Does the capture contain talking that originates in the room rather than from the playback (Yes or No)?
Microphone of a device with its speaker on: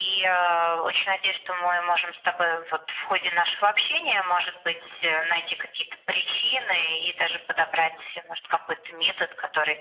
No